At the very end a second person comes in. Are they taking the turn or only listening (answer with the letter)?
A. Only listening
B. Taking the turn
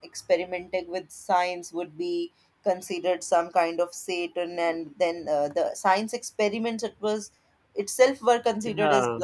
A